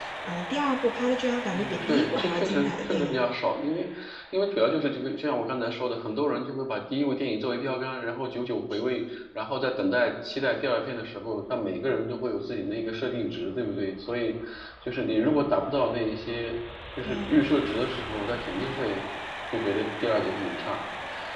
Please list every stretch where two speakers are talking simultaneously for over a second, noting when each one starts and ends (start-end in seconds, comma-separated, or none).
1.5-3.2